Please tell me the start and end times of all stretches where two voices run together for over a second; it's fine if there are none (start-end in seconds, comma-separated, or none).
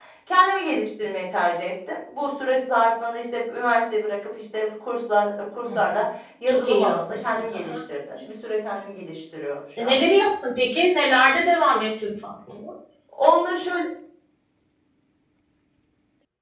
6.5-7.7